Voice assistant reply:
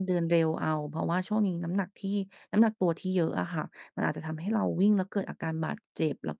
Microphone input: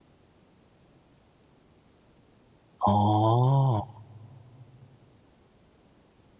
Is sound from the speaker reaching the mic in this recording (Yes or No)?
No